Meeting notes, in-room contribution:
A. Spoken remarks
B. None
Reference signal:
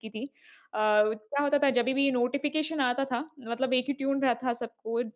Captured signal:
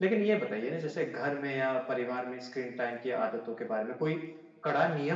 A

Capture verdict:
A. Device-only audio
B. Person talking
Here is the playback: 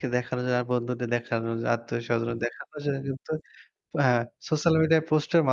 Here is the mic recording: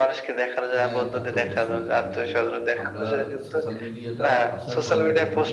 B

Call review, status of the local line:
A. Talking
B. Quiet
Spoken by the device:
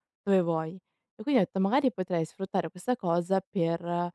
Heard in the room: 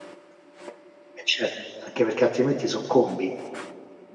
A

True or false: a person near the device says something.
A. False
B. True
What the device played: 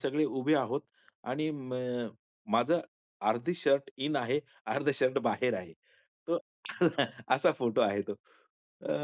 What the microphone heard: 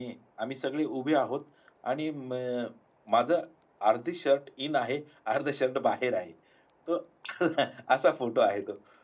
A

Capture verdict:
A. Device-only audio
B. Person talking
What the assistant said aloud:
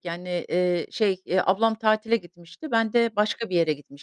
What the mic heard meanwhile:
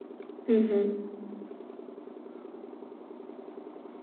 B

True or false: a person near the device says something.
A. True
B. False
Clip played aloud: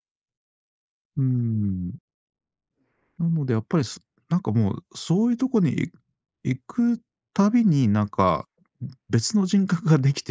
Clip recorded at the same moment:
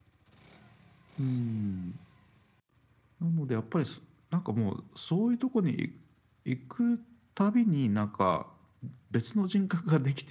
B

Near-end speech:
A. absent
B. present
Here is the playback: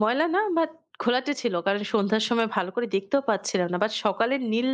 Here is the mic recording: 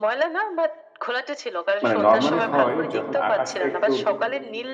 B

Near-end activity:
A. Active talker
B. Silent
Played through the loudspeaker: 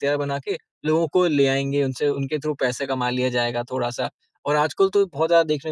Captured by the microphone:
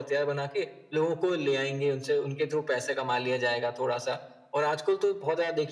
B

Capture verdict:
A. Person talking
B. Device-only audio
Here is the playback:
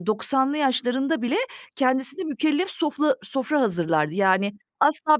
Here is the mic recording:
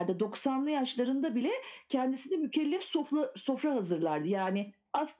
B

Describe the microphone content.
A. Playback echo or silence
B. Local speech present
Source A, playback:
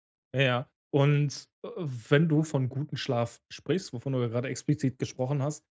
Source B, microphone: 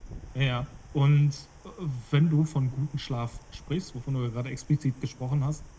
A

